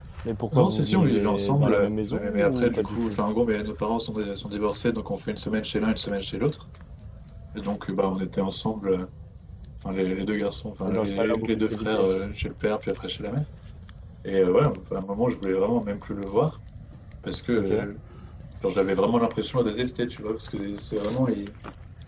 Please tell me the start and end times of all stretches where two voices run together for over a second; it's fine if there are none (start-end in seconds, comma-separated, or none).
0.6-3.2, 10.9-12.1